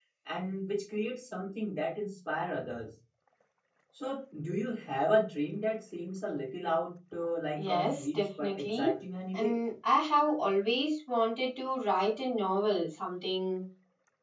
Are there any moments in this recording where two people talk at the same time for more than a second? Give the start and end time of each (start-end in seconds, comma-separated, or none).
7.6-8.9